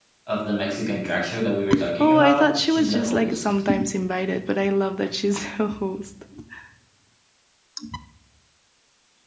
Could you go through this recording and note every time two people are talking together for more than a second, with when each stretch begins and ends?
2.0-3.4

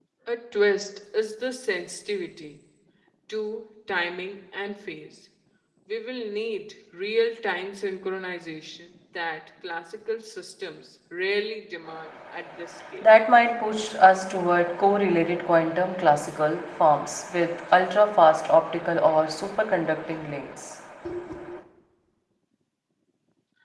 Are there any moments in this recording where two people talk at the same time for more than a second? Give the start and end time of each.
none

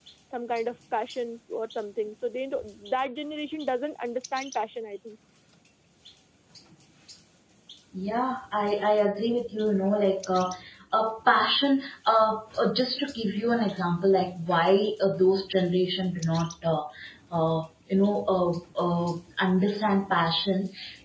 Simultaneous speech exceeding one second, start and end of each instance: none

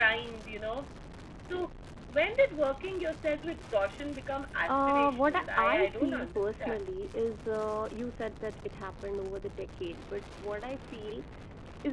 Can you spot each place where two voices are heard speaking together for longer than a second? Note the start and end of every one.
4.7-6.8

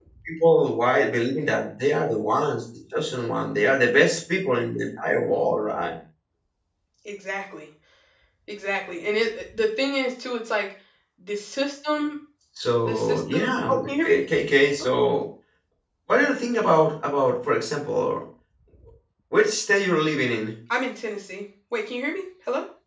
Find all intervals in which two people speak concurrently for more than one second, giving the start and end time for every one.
12.9-14.2

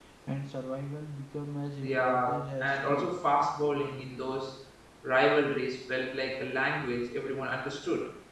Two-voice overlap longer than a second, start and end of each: 1.8-3.1

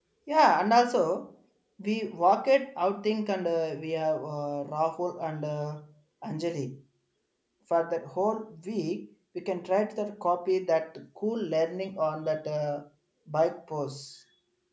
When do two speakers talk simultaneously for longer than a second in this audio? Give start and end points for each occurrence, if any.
none

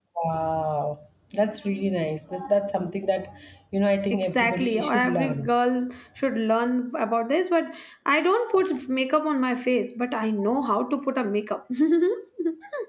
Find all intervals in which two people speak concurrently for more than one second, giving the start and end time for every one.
4.1-5.5

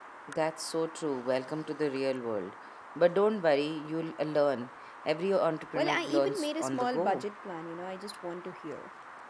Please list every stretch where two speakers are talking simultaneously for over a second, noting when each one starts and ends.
5.7-7.2

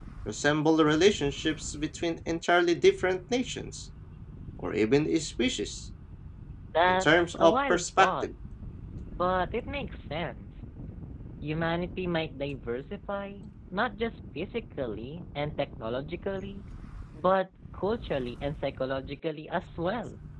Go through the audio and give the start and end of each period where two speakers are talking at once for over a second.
6.9-8.3

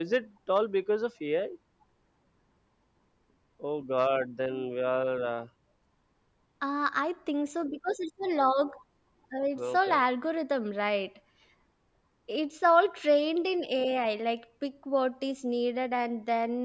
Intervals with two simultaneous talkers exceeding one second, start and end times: none

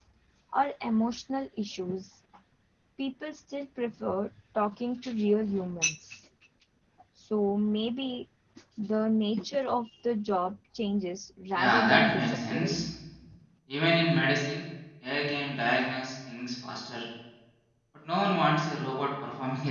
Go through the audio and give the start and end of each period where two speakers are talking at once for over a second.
11.6-12.9

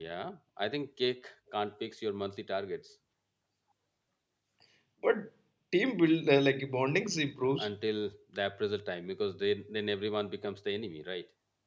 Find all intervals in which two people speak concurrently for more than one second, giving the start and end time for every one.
none

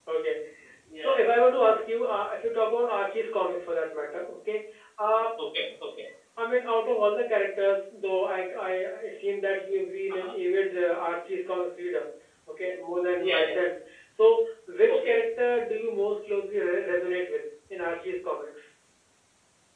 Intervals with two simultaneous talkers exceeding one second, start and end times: none

